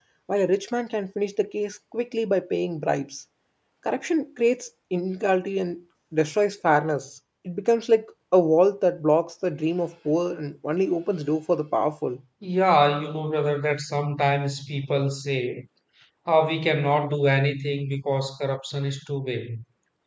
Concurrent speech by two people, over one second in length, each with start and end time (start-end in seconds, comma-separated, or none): none